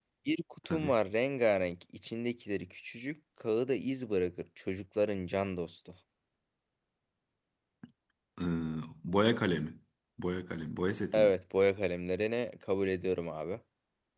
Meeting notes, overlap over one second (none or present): none